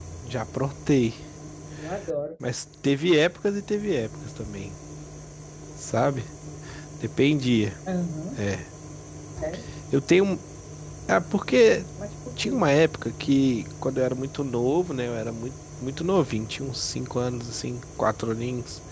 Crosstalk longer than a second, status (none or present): none